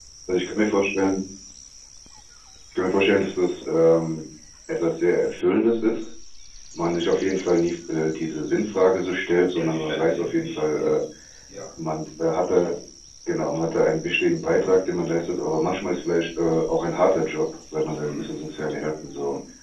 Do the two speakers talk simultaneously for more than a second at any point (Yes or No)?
Yes